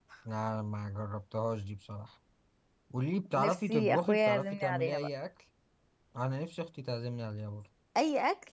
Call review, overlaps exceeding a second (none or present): present